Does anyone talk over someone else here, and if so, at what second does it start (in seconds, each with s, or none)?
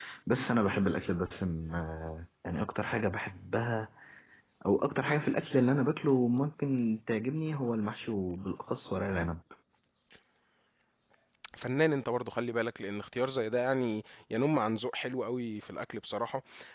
none